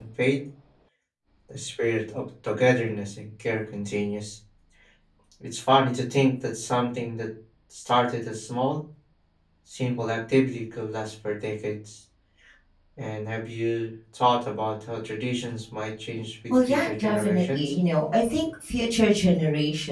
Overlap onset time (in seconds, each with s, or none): 16.5 s